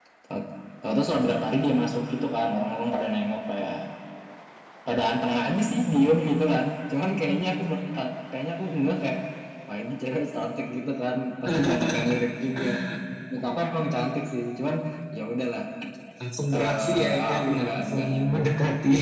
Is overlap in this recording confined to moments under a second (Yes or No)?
No